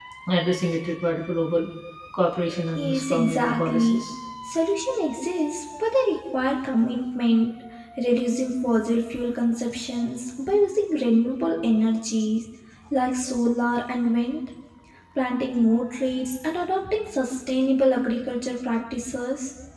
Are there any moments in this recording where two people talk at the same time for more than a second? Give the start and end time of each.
2.8-4.0

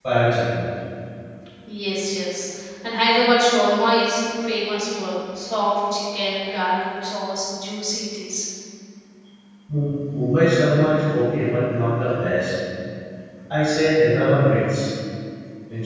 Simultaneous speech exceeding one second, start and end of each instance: none

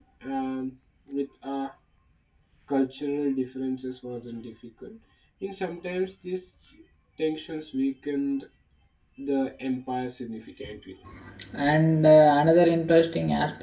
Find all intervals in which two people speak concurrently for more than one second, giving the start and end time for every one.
none

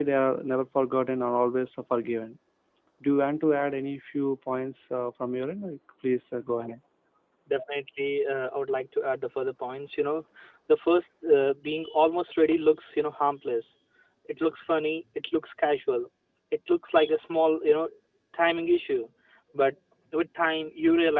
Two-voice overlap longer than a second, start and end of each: none

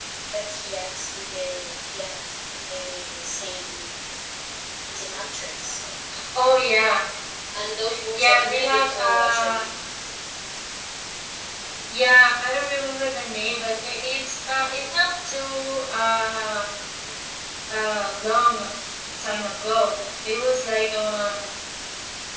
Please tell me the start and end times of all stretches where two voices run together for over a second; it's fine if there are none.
8.1-9.6

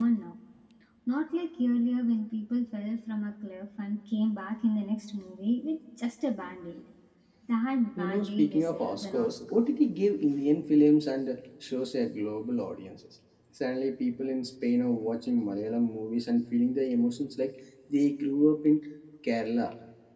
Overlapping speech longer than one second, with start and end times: 8.0-9.7

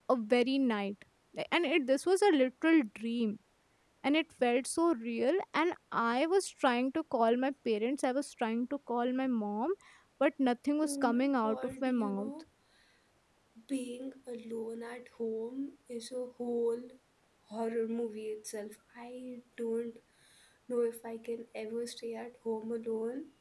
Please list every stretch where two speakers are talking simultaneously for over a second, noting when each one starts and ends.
10.8-12.3

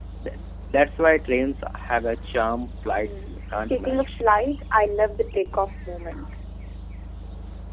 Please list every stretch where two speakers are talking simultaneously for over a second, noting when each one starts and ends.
2.9-4.2

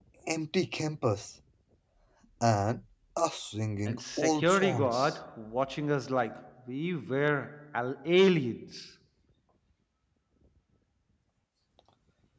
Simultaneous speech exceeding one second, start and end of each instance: 3.9-5.2

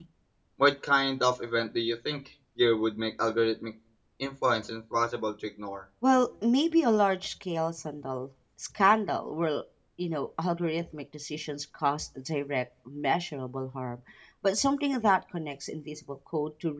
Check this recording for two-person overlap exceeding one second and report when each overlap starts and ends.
none

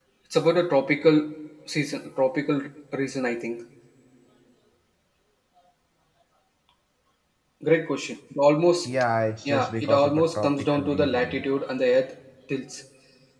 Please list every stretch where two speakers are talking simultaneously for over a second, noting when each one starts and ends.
9.5-11.4

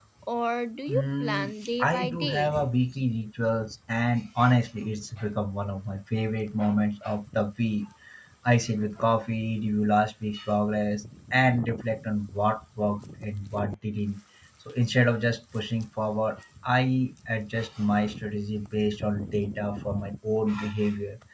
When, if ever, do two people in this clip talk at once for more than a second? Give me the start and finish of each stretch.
0.9-2.5

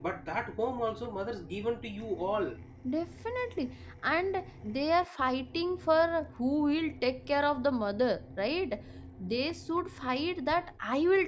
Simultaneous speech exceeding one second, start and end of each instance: none

